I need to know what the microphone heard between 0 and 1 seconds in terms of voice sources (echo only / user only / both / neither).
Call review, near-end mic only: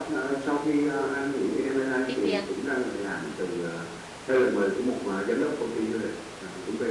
echo only